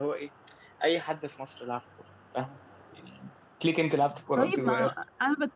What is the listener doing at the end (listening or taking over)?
taking over